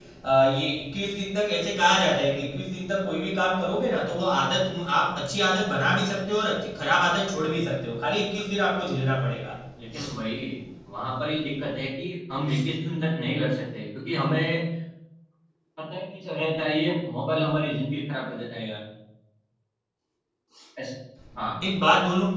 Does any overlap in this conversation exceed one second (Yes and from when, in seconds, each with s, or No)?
No